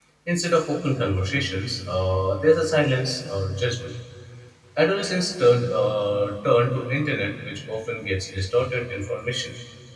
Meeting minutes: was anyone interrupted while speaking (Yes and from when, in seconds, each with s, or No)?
No